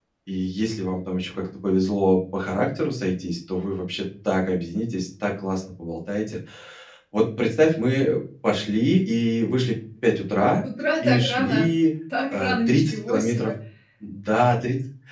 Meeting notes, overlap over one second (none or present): present